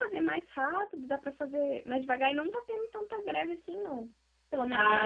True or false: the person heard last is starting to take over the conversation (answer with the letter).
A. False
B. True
B